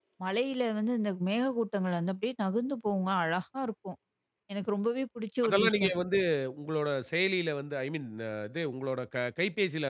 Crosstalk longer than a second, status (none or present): none